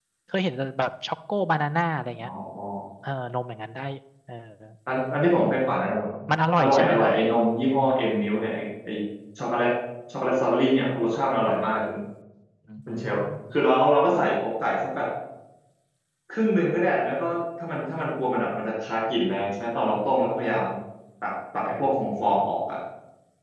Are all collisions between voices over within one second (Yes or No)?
Yes